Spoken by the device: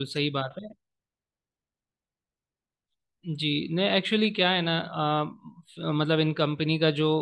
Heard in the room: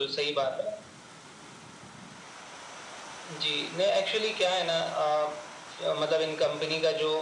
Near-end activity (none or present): none